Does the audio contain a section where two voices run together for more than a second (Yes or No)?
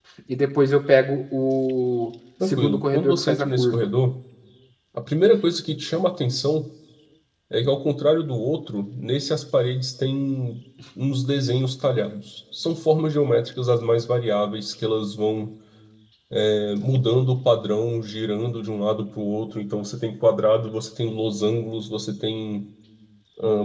Yes